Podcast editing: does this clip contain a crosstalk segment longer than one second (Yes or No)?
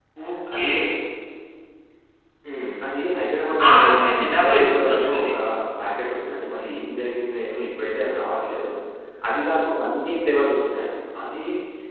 Yes